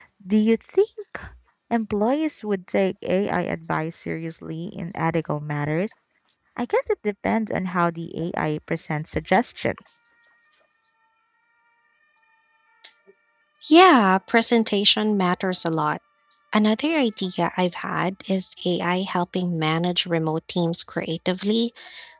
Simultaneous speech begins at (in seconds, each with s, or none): none